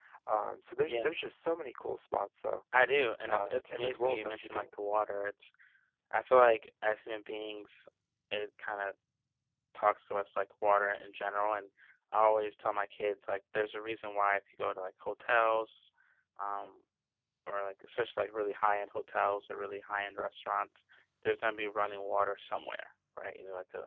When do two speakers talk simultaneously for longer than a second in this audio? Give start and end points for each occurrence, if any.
3.3-4.7

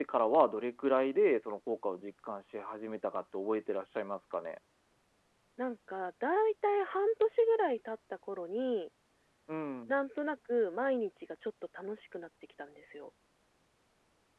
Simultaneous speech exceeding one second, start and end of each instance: none

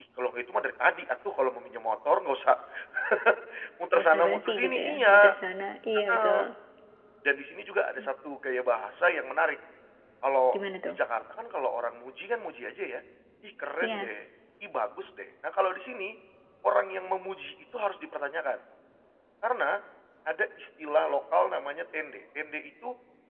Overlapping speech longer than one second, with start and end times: 4.0-5.3

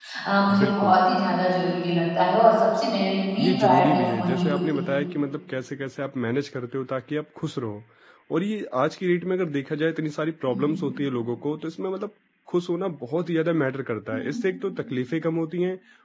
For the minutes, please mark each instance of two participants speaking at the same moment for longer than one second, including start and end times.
3.4-4.9

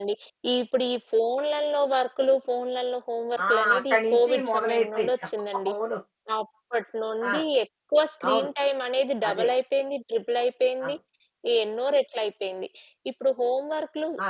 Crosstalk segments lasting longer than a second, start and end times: 3.5-5.1

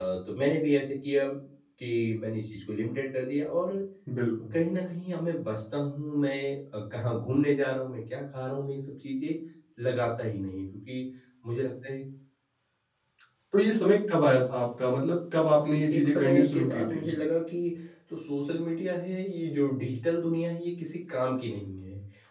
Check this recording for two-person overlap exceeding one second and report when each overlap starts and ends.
15.6-17.1

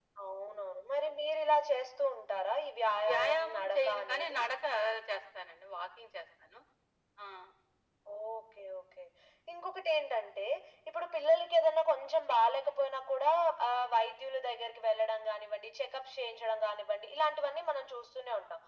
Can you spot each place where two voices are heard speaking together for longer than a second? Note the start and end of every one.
3.1-4.4

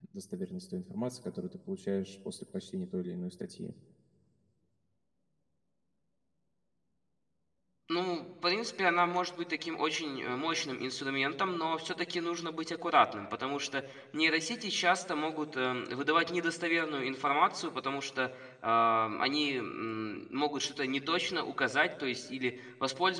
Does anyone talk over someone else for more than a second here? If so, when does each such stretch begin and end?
none

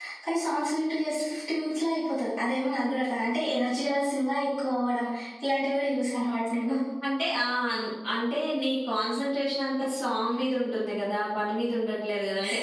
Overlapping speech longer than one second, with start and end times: none

